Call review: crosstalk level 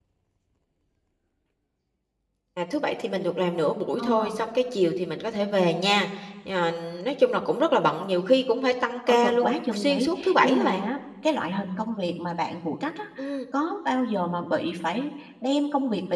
present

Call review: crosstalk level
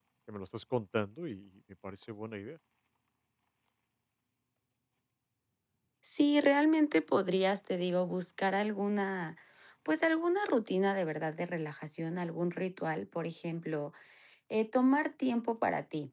none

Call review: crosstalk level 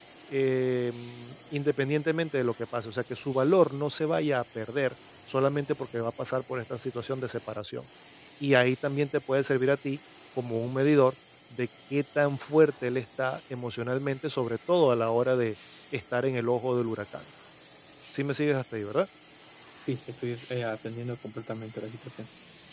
none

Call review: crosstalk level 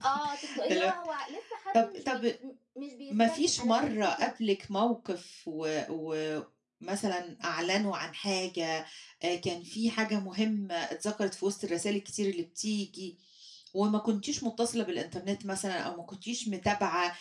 present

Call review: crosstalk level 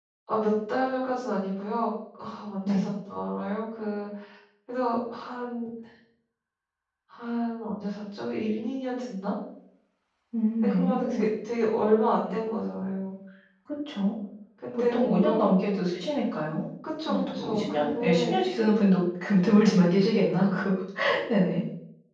present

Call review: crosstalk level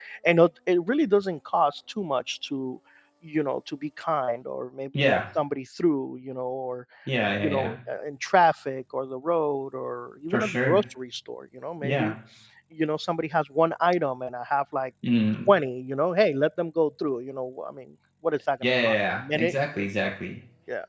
present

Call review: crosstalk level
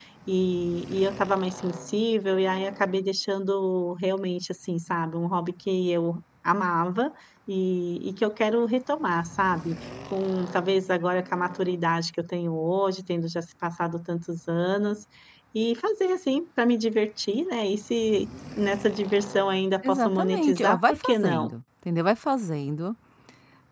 present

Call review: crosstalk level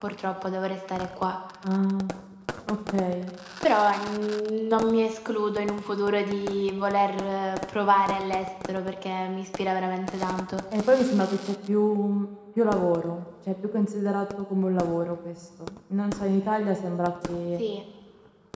none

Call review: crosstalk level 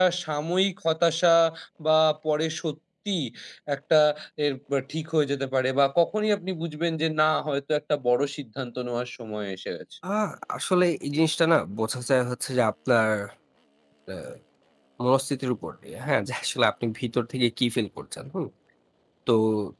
none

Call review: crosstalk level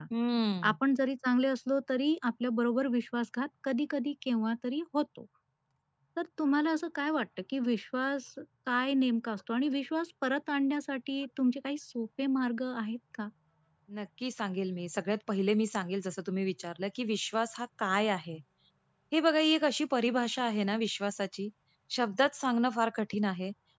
none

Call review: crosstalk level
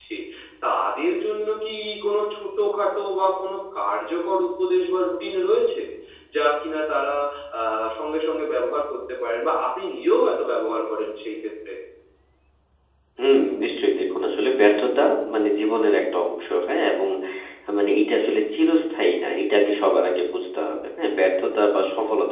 none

